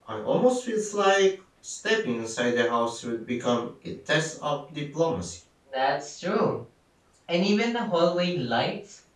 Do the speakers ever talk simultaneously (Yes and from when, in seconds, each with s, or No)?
No